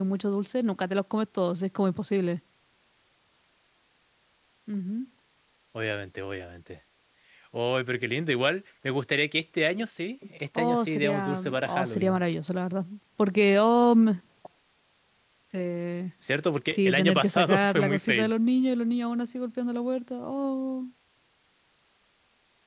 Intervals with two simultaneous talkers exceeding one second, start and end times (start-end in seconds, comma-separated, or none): 10.6-12.2, 16.7-18.3